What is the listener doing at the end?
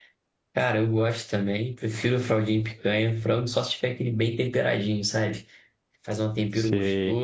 listening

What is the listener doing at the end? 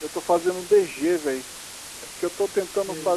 listening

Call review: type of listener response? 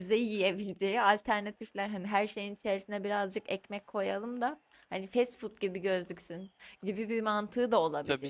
taking over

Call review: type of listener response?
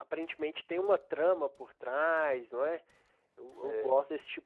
listening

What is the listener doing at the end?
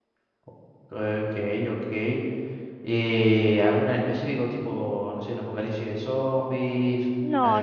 taking over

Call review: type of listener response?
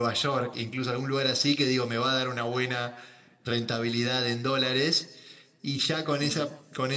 listening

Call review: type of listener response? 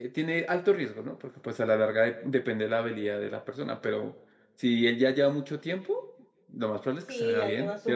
taking over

